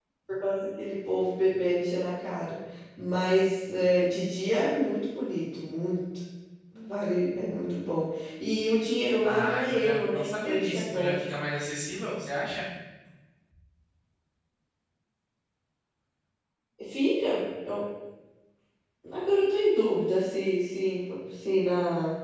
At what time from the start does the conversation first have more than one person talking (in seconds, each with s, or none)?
9.2 s